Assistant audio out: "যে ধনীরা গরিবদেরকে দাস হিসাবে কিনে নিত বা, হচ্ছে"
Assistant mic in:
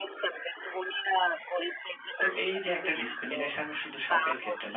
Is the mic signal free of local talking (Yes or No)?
No